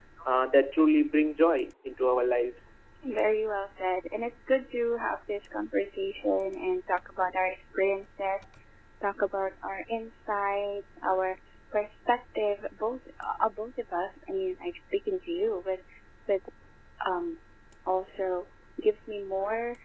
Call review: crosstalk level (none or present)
none